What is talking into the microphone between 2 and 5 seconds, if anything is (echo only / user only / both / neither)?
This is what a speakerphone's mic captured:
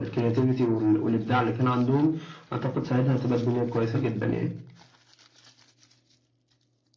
echo only